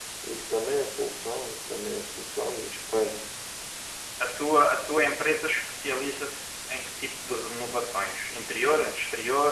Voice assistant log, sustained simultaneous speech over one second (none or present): none